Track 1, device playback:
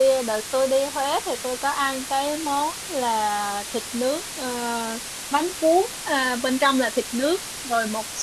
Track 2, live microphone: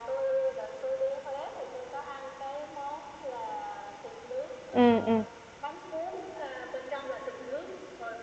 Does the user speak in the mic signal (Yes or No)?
Yes